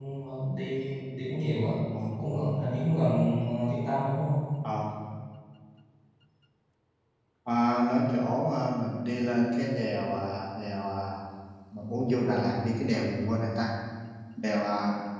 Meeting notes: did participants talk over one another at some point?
No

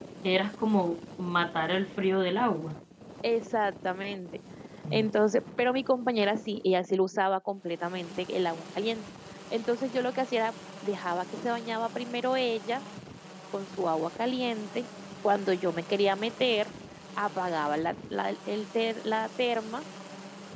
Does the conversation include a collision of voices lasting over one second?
No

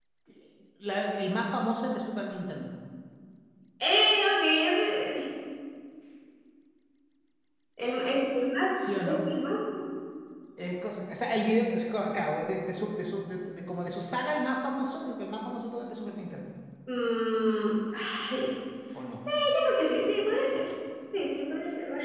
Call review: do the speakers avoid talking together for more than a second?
Yes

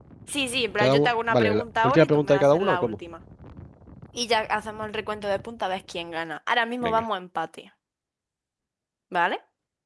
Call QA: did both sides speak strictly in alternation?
No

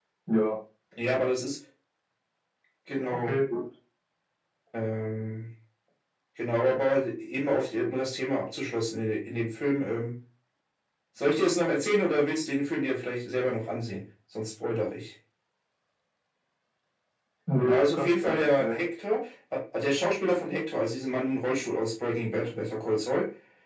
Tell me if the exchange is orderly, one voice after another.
No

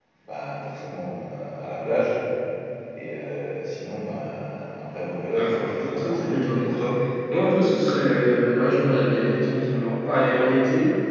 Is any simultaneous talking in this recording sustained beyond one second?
Yes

